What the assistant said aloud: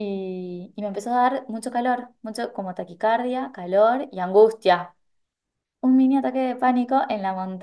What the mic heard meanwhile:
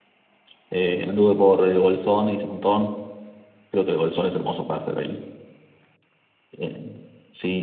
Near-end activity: present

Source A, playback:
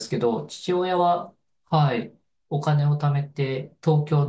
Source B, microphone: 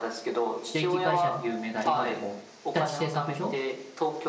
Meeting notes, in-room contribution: present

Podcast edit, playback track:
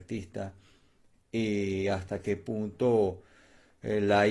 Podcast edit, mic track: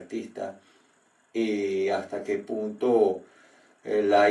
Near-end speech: none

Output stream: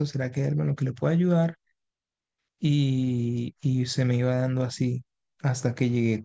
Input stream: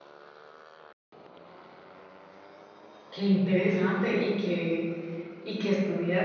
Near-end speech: present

